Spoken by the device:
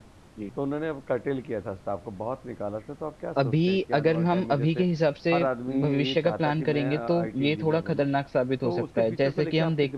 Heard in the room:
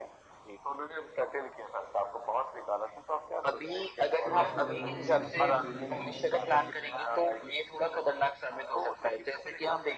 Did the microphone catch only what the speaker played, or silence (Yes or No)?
No